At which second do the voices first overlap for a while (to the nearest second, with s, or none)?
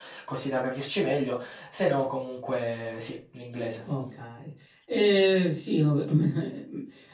none